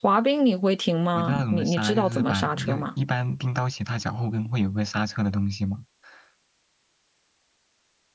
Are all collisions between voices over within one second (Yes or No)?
No